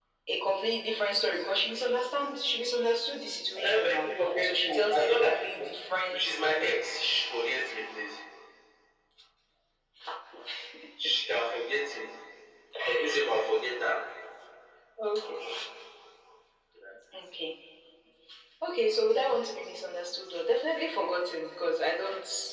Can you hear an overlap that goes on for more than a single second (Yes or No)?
Yes